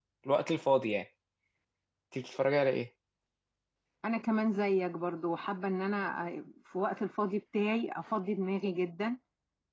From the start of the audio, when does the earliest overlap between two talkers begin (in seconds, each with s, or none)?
none